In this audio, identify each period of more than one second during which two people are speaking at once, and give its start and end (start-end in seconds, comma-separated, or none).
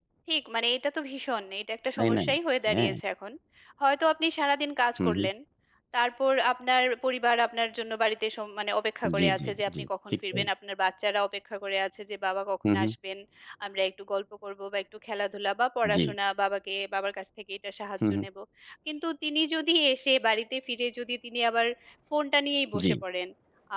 9.2-10.4